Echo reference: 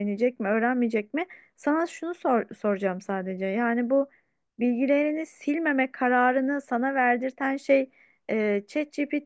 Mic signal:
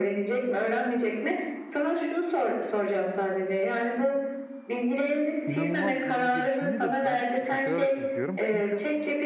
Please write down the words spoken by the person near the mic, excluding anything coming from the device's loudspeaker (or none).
inanılmaz hızlı gelişimini de ben şaşırarak izliyorum. Çünkü